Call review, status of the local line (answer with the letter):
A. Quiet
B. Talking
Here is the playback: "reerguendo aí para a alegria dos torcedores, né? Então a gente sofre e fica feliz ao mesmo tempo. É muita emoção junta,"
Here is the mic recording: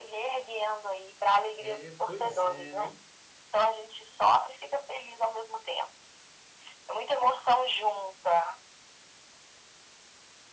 B